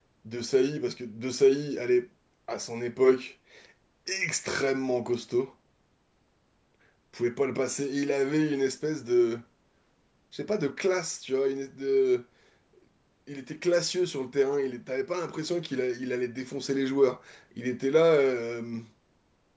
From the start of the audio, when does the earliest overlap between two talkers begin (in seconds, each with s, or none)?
none